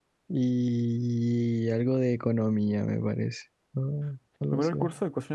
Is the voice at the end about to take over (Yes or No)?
Yes